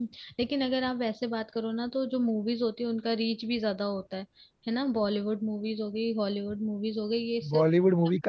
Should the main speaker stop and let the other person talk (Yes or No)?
Yes